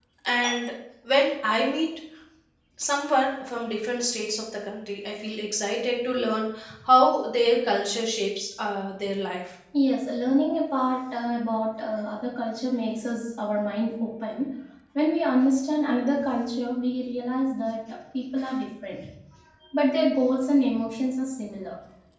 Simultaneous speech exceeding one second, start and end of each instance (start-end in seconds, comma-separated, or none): none